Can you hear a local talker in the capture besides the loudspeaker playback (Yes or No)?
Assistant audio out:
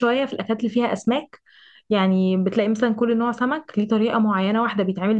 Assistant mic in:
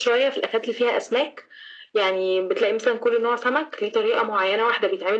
No